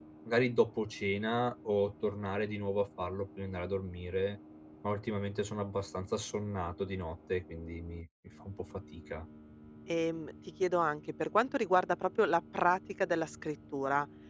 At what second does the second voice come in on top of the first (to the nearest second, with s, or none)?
none